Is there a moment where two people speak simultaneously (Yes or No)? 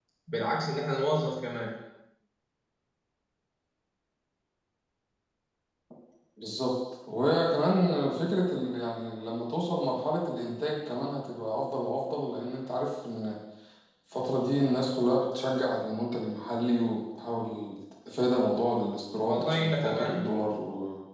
Yes